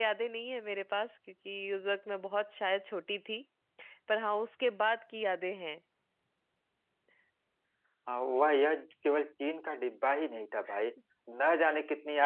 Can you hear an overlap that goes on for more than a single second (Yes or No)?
No